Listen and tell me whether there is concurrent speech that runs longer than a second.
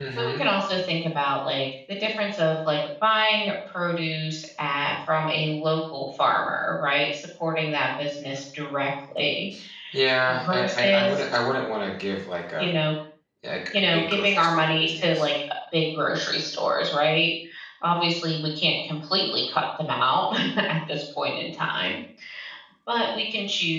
Yes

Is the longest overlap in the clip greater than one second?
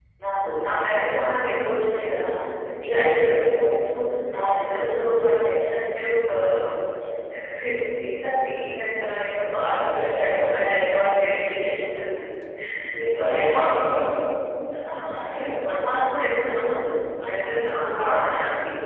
Yes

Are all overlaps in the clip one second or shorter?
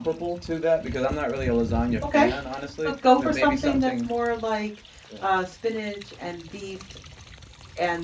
No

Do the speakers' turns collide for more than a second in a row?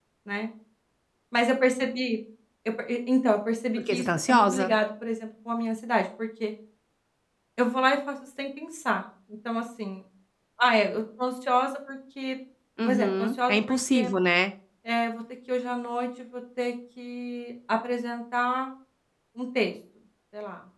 Yes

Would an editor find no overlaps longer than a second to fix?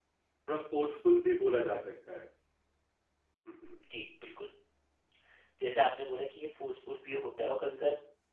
Yes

